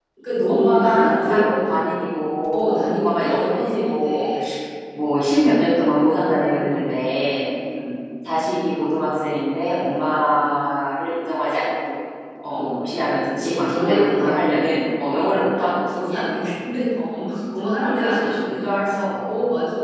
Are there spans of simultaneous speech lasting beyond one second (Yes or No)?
Yes